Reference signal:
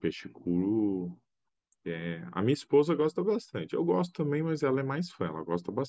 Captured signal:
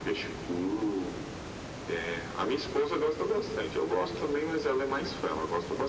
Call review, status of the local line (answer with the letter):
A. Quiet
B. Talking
A